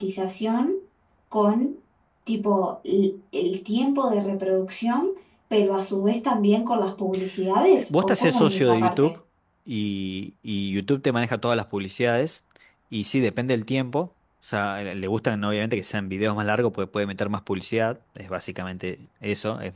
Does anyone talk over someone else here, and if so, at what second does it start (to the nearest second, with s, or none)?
8 s